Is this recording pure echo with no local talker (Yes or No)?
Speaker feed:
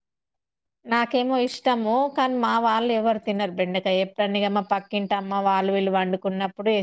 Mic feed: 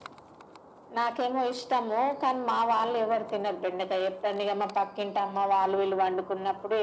Yes